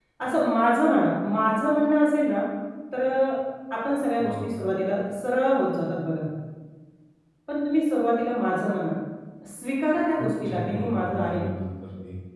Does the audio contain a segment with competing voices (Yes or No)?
Yes